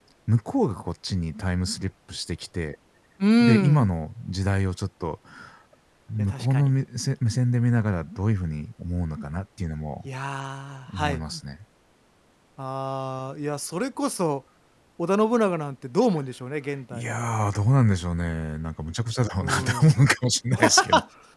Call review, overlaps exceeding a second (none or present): none